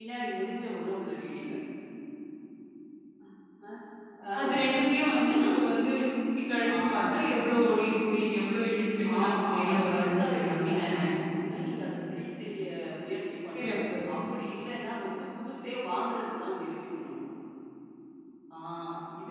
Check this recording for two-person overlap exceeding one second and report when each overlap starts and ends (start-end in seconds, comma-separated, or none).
9.2-11.0